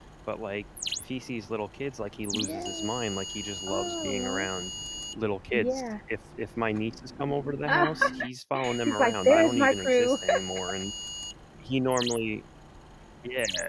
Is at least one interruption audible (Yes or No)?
Yes